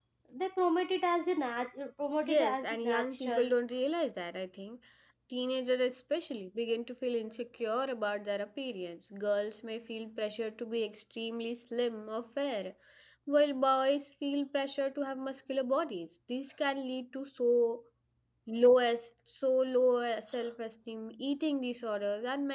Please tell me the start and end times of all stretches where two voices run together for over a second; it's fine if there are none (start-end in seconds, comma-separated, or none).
2.2-3.5